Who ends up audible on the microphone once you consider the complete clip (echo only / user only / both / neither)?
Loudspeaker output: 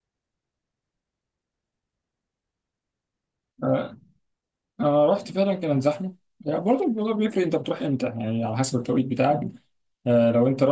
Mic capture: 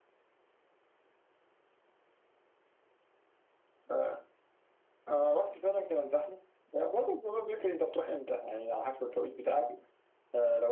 echo only